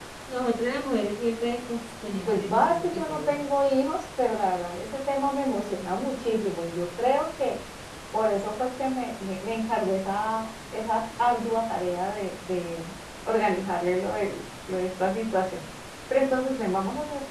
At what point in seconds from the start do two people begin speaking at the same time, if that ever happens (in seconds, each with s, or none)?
2.0 s